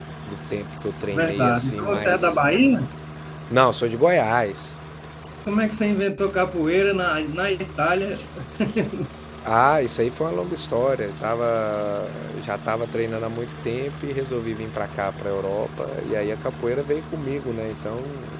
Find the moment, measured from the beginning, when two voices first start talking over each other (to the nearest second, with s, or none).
1 s